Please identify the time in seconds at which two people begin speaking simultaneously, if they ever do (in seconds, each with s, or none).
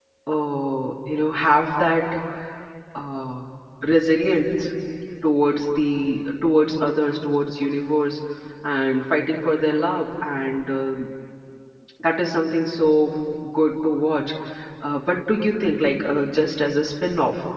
none